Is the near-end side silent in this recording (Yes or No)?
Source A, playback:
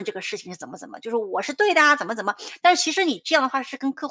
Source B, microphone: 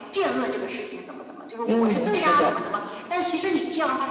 No